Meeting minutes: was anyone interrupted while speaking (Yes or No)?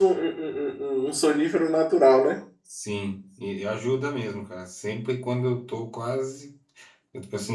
No